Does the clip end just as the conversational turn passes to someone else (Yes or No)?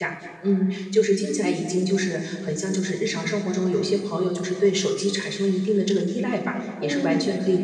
No